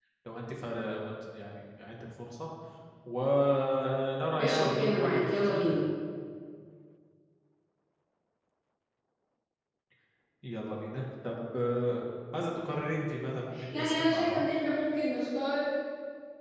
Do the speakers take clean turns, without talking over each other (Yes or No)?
No